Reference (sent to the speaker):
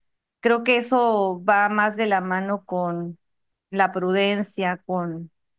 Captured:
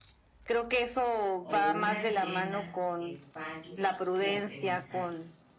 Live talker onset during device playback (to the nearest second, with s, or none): 1 s